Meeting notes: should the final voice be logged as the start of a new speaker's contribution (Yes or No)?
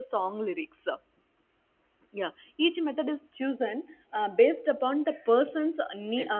No